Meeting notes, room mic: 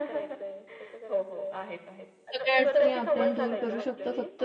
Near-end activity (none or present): present